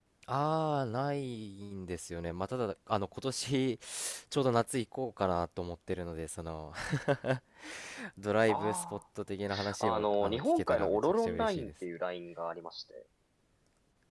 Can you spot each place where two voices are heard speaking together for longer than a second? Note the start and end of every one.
9.8-11.7

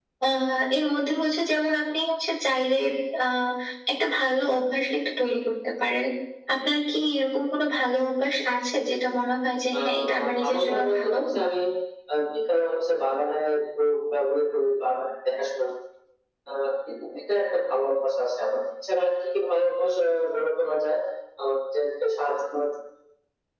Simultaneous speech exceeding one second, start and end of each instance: 9.7-11.2

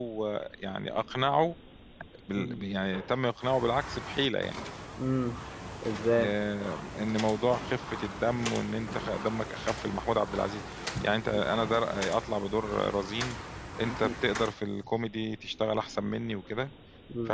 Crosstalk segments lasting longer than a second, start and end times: none

